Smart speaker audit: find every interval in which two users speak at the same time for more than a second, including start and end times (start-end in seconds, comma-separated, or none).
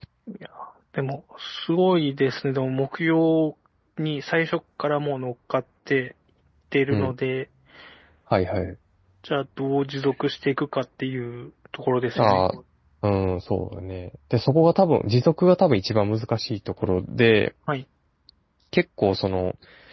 none